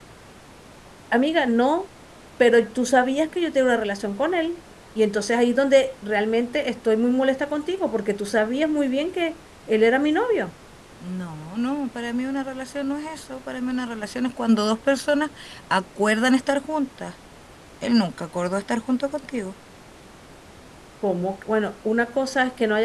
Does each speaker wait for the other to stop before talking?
Yes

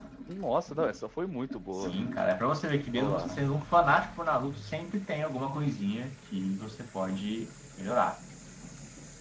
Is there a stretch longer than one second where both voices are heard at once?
No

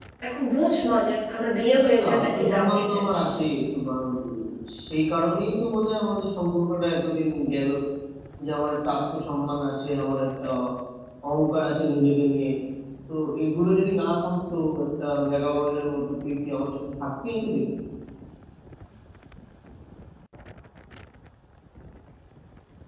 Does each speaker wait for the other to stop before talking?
No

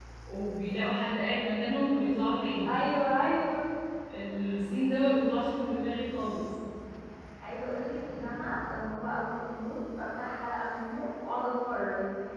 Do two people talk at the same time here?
No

